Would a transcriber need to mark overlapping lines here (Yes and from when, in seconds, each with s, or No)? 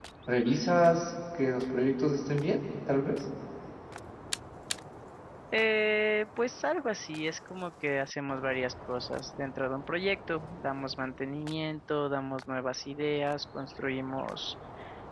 No